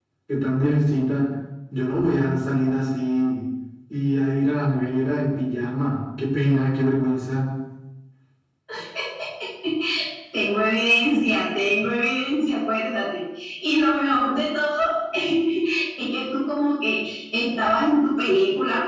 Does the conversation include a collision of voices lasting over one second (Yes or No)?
No